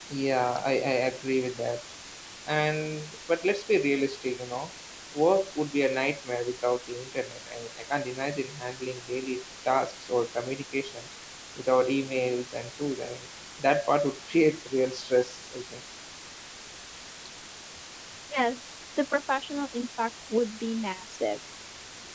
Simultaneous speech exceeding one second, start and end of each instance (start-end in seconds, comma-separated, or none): none